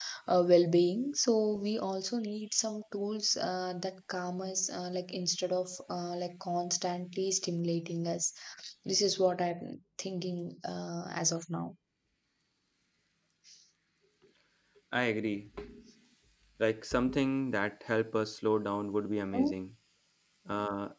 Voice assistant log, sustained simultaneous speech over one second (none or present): none